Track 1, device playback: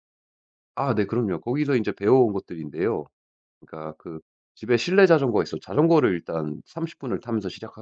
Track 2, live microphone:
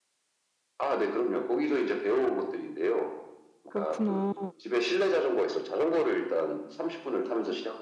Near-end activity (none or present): present